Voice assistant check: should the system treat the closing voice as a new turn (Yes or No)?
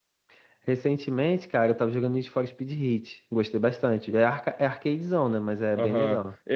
Yes